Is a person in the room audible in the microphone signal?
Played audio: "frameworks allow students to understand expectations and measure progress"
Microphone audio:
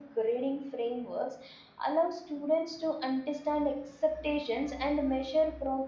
No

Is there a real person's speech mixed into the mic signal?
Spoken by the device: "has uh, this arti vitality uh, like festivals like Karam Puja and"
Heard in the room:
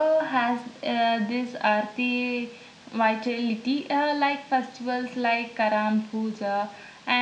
No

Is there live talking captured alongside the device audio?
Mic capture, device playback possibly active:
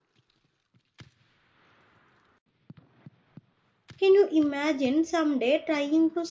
Yes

